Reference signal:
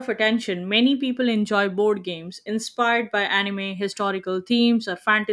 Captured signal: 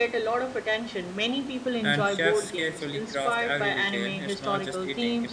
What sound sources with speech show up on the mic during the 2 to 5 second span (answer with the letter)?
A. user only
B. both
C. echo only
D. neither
B